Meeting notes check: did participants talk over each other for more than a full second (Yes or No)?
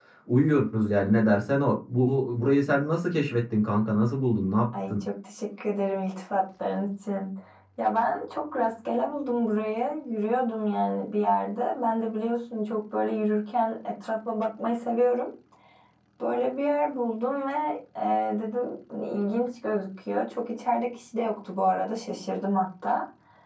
No